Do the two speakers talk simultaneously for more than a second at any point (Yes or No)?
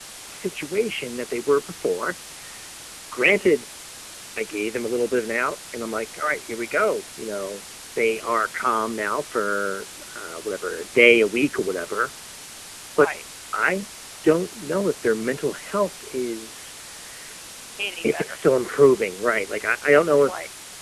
No